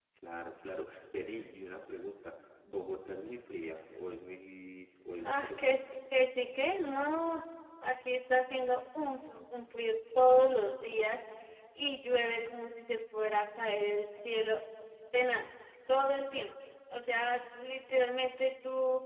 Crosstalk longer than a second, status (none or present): none